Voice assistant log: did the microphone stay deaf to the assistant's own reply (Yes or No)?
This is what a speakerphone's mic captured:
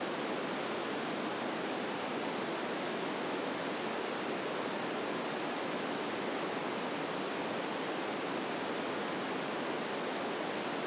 Yes